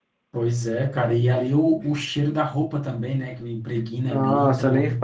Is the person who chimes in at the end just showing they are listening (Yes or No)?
No